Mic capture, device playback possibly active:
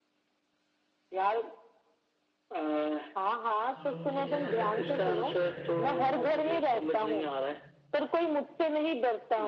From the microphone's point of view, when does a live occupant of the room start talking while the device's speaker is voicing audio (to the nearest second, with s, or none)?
4 s